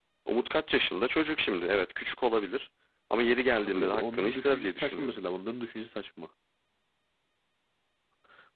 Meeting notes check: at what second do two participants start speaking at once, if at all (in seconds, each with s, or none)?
3.6 s